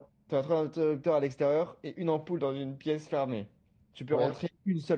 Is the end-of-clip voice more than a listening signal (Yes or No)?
No